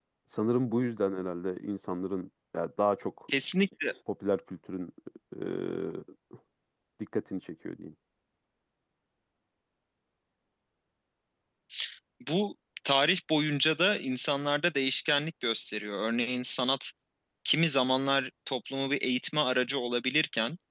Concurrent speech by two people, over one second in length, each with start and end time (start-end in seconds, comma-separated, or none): none